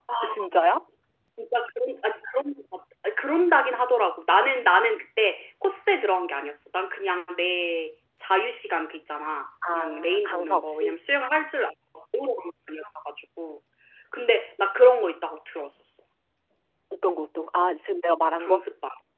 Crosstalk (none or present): present